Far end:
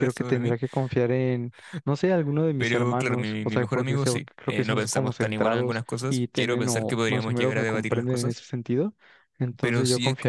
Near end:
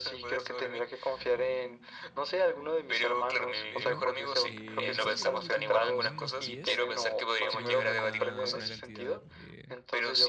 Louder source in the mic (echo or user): echo